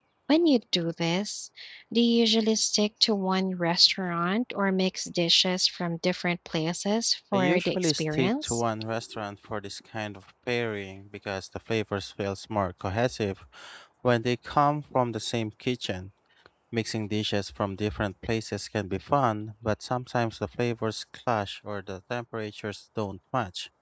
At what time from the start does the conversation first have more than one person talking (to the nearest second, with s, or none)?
7 s